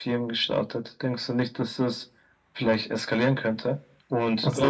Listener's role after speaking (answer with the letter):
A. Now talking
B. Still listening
B